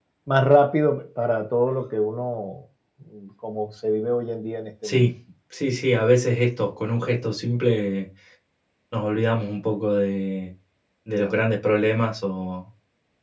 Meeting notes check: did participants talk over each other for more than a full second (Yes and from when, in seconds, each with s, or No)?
No